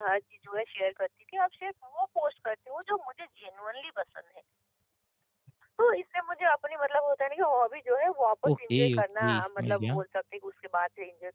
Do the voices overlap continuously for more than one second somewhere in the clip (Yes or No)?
Yes